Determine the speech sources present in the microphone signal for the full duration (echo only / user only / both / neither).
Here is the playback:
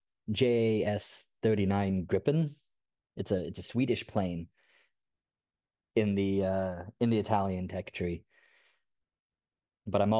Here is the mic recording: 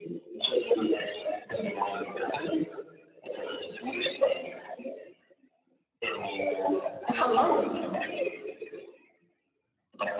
both